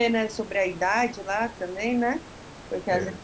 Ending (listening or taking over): listening